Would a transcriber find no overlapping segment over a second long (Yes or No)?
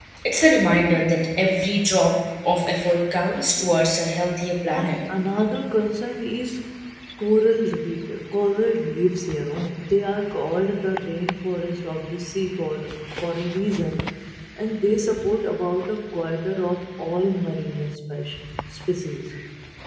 Yes